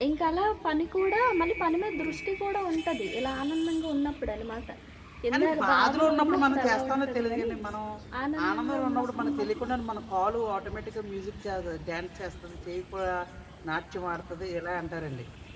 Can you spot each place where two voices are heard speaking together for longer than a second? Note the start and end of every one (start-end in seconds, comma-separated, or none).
5.3-7.5, 8.5-9.7